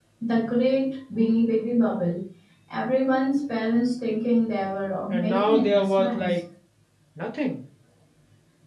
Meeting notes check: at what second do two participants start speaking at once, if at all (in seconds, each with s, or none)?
5.1 s